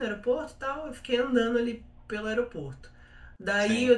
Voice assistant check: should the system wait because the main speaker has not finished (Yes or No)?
Yes